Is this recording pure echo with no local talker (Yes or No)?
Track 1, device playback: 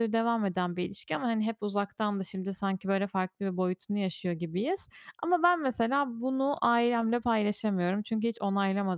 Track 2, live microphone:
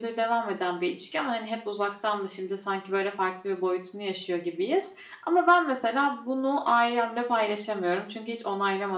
Yes